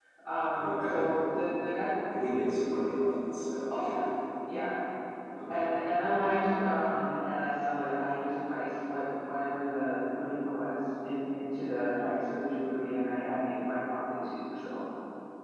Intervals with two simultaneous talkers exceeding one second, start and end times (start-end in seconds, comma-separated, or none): none